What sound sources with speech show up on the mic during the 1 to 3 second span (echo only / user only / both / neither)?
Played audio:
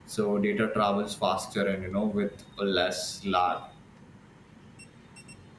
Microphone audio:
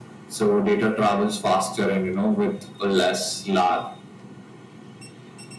echo only